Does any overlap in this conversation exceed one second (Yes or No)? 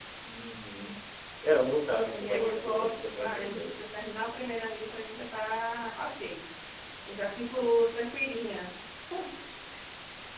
Yes